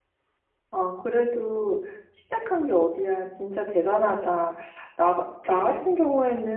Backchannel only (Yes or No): Yes